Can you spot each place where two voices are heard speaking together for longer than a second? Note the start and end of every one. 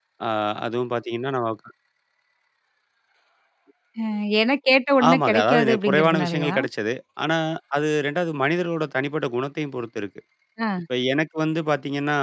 5.1-6.5

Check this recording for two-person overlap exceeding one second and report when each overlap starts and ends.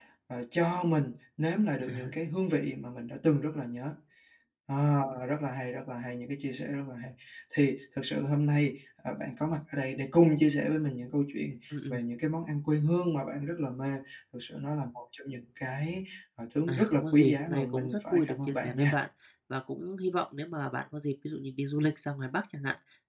16.7-19.0

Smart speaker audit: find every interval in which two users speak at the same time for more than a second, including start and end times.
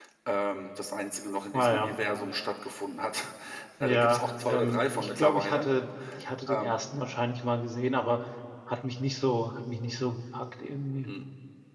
3.8-5.7

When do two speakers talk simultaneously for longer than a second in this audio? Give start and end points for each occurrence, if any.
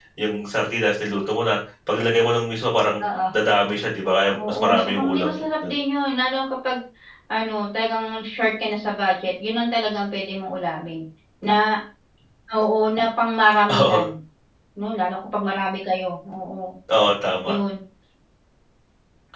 4.5-5.7

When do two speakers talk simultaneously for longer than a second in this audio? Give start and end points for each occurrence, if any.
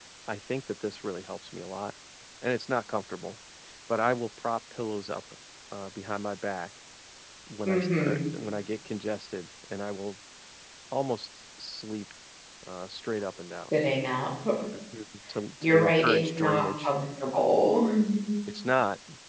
15.6-16.9

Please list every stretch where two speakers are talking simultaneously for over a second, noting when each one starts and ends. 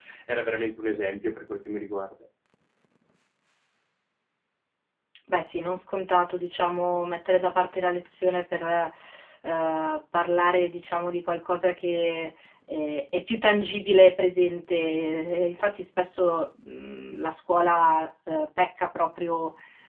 none

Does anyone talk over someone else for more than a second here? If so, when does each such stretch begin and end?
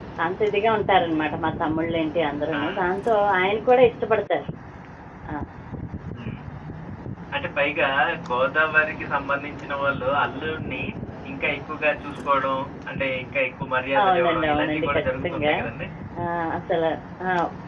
14.0-15.5

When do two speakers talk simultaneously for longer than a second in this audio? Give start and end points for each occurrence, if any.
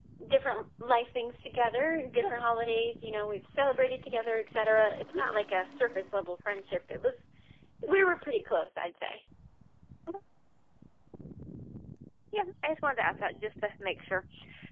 none

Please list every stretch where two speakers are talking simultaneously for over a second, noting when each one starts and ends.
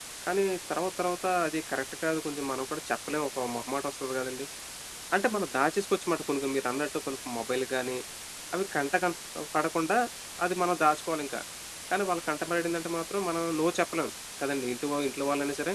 none

